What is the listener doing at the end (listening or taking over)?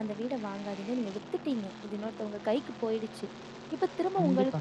listening